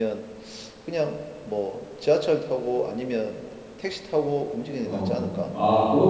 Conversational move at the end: taking over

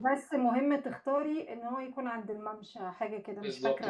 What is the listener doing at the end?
taking over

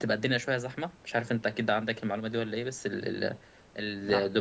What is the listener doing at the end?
listening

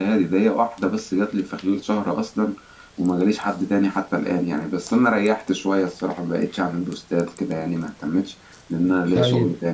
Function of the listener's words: taking over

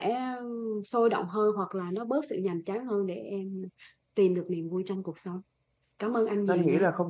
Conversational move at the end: taking over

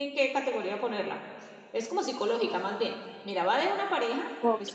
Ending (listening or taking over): listening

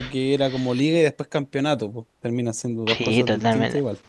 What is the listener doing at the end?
taking over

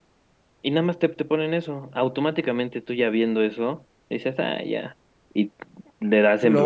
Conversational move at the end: listening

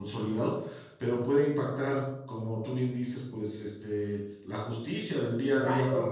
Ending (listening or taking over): listening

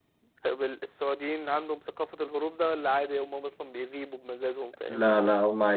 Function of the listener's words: taking over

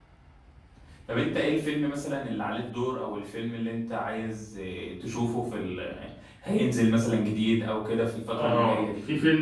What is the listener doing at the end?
taking over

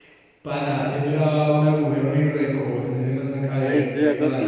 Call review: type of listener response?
taking over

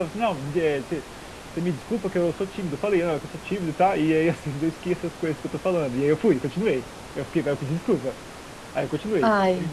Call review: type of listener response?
listening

